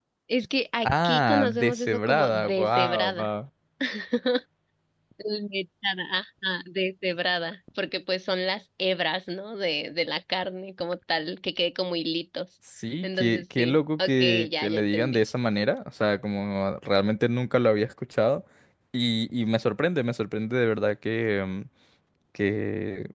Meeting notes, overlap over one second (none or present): present